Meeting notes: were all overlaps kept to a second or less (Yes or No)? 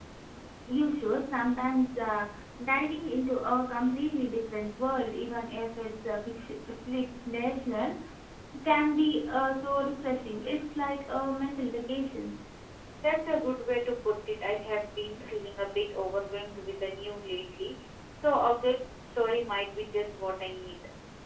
Yes